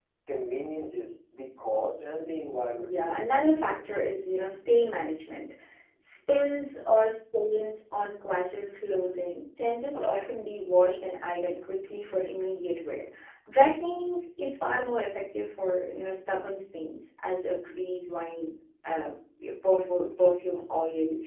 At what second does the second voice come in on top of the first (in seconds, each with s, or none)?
2.8 s